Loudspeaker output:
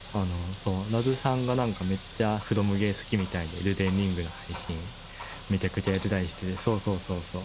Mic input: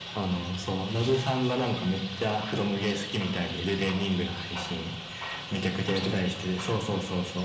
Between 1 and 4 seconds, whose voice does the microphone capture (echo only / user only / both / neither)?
echo only